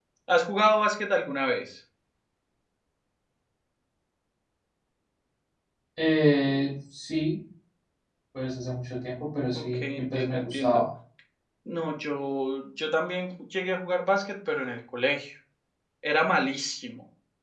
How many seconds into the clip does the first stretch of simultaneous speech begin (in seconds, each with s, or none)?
9.5 s